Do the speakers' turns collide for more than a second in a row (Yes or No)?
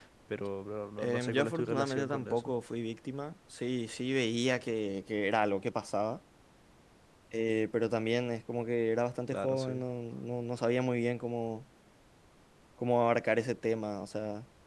Yes